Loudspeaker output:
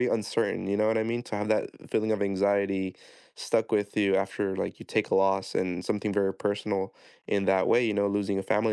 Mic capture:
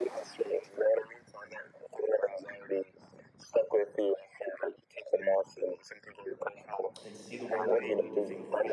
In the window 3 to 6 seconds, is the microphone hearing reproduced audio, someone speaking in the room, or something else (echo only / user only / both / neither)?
echo only